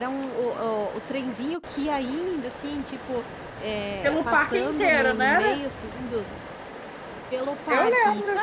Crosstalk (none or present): present